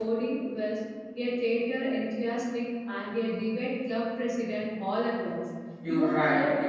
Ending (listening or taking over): taking over